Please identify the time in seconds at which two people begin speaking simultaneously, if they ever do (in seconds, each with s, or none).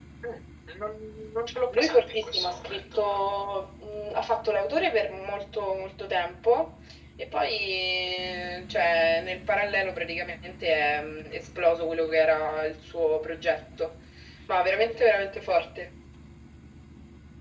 1.7 s